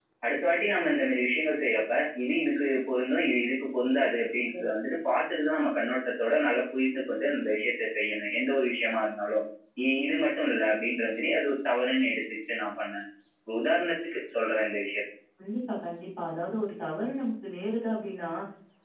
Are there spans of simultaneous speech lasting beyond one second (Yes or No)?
No